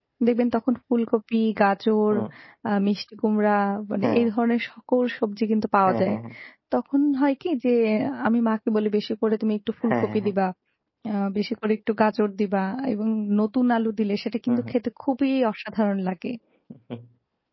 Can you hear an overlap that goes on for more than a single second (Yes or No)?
No